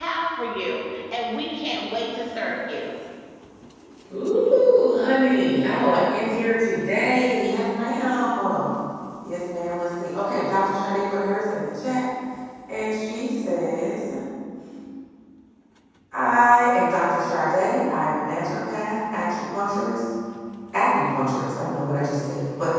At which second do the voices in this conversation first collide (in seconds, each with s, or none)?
none